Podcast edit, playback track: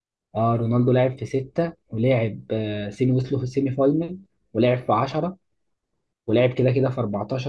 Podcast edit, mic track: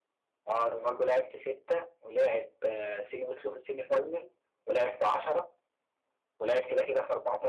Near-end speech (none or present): none